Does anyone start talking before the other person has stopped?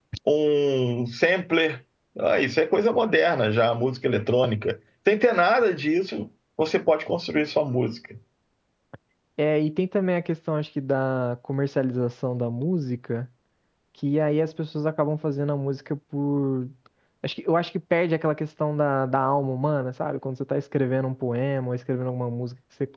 No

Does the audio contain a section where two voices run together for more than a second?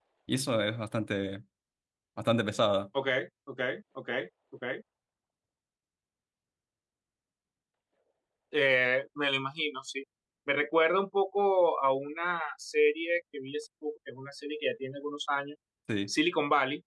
No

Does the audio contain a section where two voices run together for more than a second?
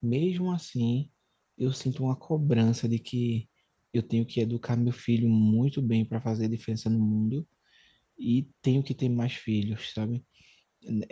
No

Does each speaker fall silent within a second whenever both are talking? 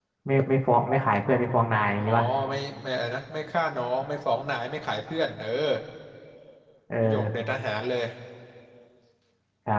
Yes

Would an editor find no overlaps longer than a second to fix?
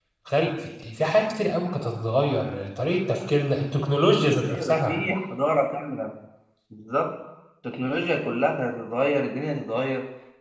Yes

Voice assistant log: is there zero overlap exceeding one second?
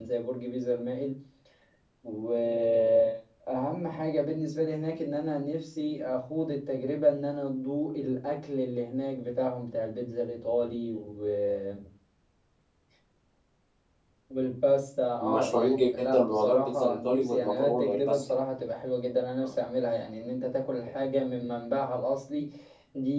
No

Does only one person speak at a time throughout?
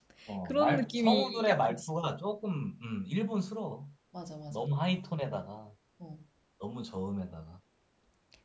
No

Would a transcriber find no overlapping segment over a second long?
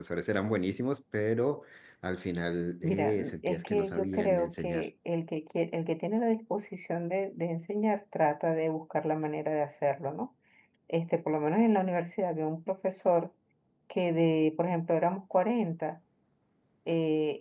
No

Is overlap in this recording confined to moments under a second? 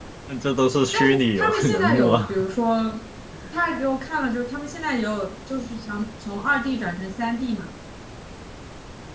No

